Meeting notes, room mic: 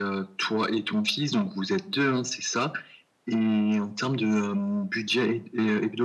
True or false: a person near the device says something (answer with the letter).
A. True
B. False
B